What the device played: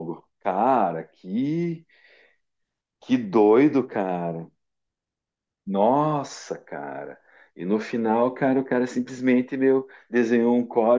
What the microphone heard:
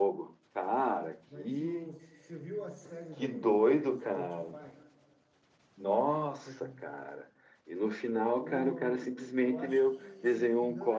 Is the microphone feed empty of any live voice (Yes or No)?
No